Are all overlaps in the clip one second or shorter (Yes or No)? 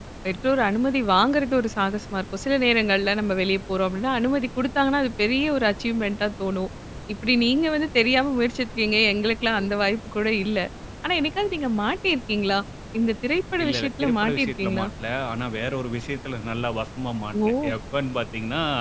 No